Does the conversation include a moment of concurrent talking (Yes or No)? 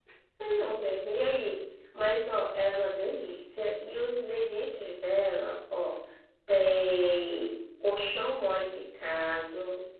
No